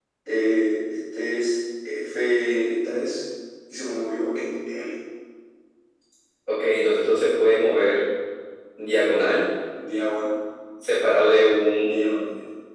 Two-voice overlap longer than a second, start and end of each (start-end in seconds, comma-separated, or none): none